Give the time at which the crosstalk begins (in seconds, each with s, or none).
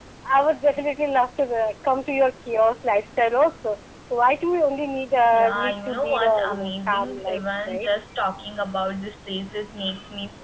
5.3 s